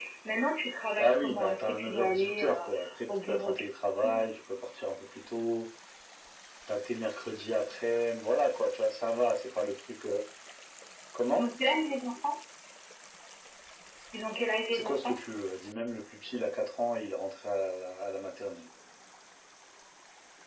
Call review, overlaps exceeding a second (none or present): present